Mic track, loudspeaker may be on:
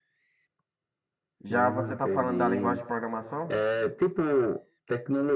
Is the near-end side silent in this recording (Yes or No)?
No